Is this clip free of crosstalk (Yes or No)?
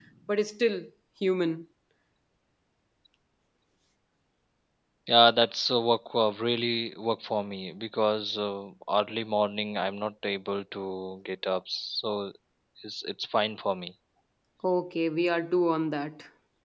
Yes